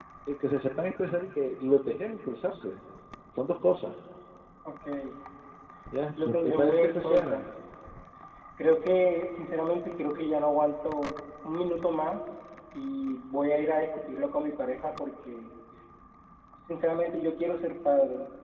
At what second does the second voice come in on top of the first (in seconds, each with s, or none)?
6.2 s